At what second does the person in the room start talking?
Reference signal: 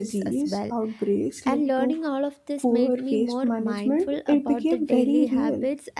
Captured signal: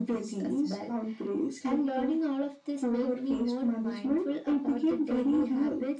none

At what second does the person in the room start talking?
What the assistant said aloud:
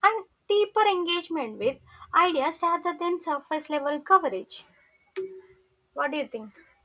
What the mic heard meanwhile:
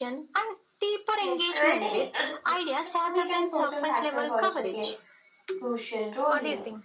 1 s

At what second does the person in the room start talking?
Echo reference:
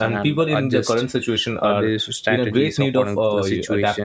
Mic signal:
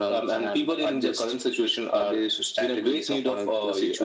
none

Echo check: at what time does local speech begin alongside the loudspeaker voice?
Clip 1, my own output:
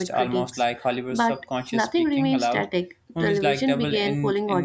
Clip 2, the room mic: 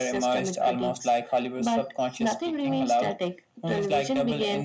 none

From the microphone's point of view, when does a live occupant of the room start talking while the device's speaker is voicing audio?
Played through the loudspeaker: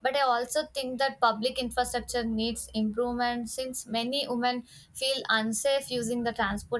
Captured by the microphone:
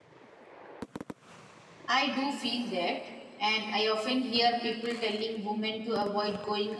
2 s

